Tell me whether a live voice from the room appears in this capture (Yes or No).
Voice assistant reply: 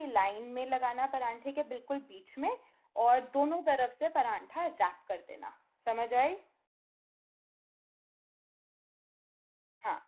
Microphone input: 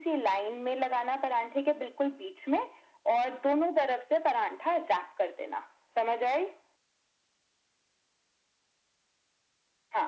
No